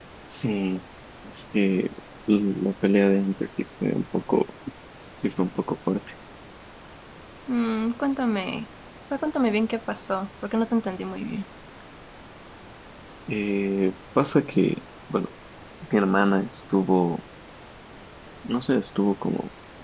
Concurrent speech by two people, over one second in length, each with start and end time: none

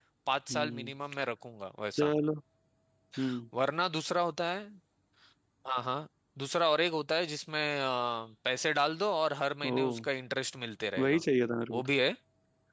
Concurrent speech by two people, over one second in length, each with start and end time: none

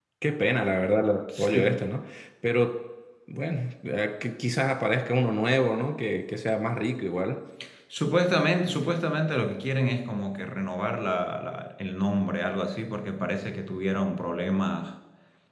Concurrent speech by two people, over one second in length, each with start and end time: none

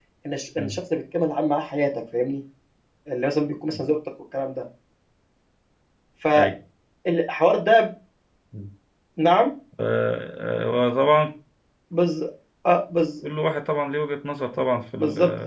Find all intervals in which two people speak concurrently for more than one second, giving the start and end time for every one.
none

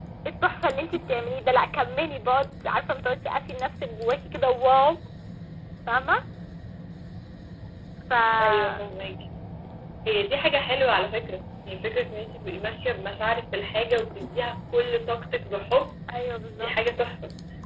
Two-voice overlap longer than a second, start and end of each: none

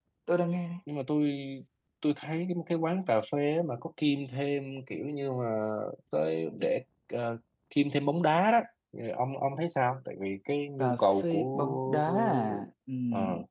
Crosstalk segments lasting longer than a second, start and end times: 10.8-12.6

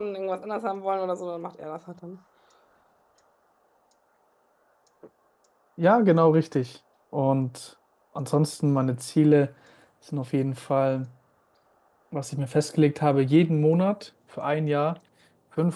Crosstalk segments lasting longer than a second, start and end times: none

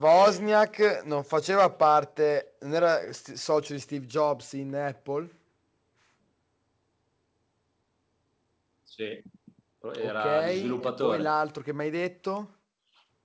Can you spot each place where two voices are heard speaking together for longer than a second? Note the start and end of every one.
10.0-11.3

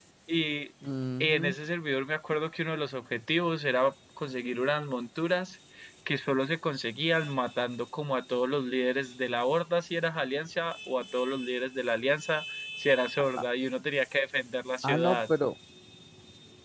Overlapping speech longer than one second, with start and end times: none

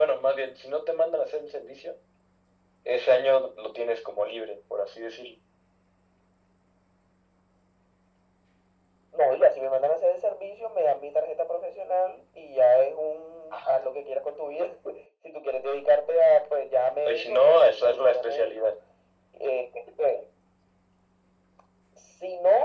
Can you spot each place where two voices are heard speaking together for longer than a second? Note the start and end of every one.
17.1-18.7

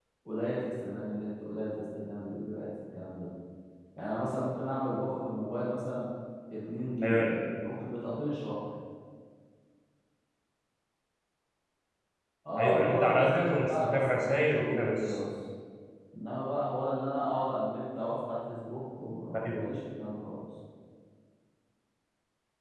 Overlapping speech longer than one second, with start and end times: 12.6-15.2

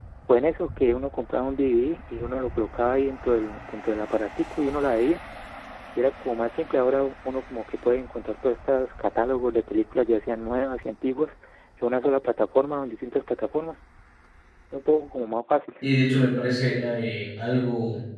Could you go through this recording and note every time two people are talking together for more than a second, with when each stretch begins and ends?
none

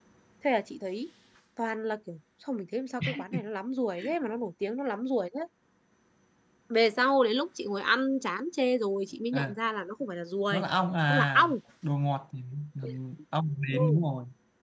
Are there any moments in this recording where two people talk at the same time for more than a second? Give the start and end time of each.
none

